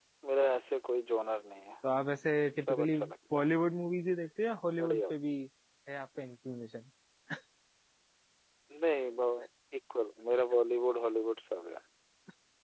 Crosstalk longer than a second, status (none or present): none